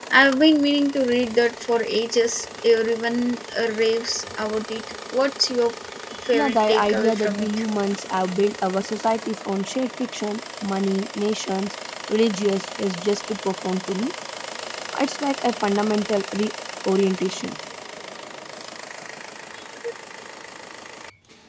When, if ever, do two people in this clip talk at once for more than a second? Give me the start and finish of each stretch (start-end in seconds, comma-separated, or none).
6.3-7.7